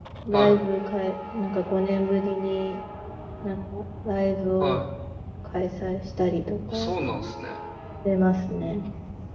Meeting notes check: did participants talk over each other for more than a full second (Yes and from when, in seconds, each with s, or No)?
No